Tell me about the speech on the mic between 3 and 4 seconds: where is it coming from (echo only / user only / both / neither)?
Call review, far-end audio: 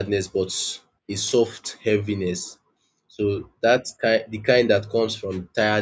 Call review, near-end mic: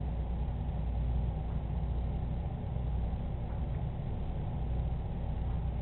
neither